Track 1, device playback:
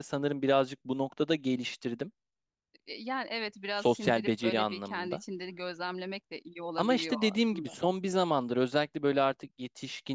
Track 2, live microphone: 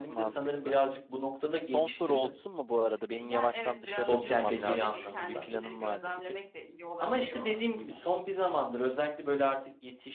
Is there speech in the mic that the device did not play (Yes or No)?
Yes